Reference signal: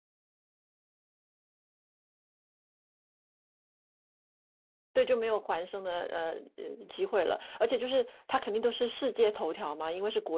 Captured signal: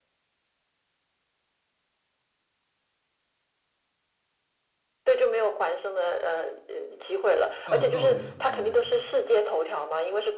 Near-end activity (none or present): present